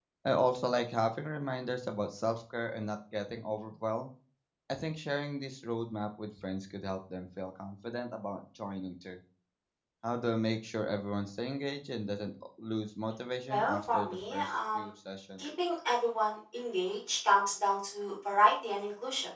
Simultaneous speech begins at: 13.5 s

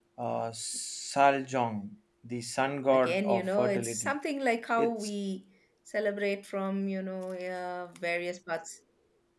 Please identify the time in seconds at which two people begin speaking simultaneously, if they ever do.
2.9 s

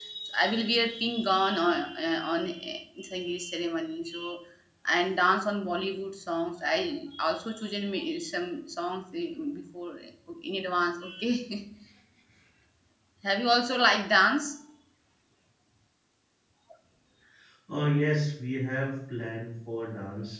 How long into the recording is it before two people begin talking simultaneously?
none

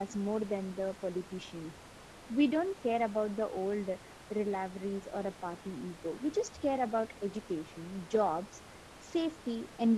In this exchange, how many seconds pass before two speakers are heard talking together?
none

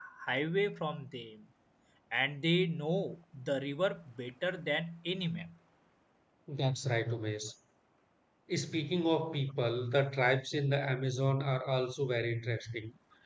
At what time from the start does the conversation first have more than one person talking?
none

